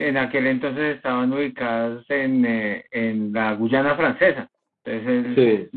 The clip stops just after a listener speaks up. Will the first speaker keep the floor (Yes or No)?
Yes